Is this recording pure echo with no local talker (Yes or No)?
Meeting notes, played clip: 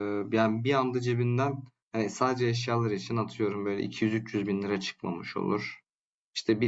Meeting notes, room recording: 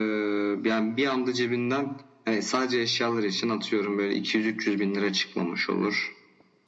Yes